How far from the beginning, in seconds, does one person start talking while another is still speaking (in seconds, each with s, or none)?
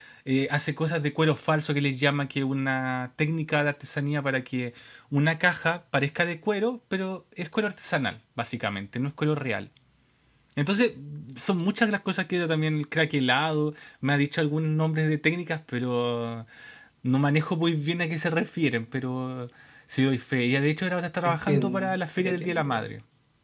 21.2 s